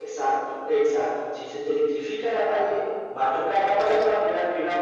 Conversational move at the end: listening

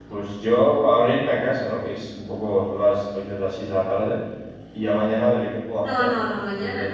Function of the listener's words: taking over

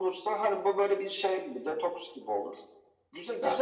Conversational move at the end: listening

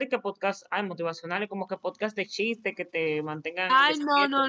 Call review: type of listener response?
taking over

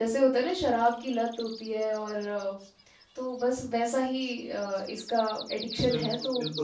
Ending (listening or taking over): taking over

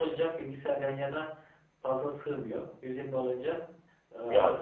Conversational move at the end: listening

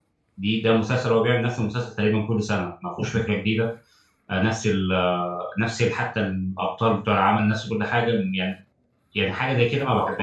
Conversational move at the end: taking over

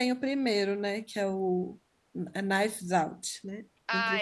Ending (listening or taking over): taking over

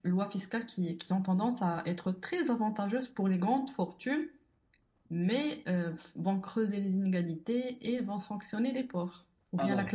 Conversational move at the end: taking over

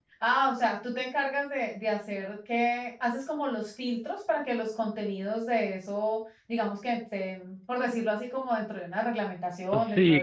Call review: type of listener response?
taking over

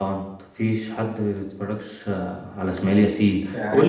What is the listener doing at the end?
listening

